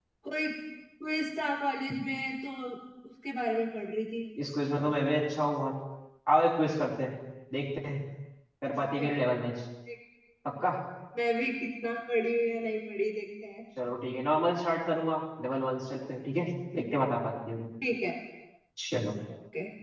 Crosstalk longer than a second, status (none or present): none